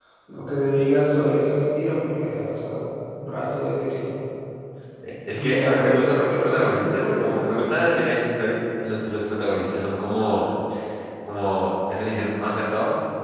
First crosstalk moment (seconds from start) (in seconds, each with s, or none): 5.4 s